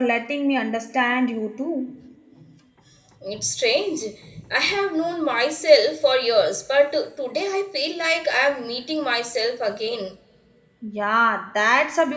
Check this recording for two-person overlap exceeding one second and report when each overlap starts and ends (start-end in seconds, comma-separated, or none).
none